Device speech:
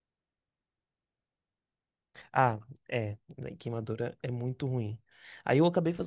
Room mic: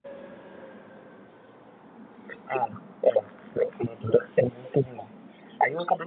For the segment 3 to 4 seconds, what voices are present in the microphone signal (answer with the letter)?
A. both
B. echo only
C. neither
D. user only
B